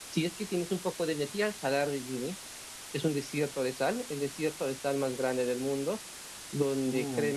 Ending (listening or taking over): listening